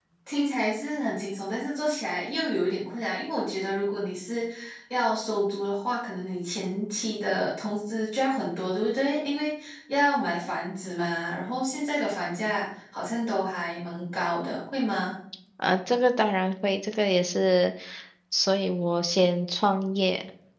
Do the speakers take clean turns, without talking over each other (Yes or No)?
Yes